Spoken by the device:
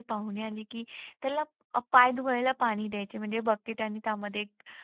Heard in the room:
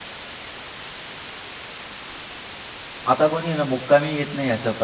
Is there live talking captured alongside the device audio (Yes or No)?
Yes